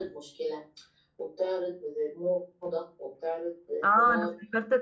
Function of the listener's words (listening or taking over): taking over